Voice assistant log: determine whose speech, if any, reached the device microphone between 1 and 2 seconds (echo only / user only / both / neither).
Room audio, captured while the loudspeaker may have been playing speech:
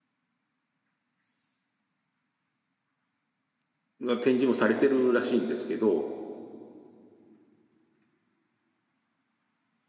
neither